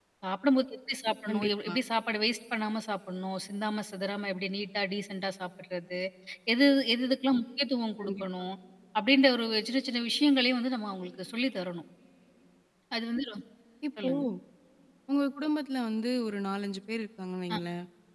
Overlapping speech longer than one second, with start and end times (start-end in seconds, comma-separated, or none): none